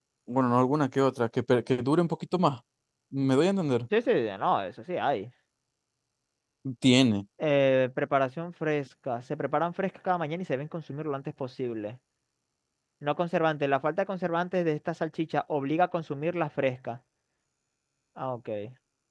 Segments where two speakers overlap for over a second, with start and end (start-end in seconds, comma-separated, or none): none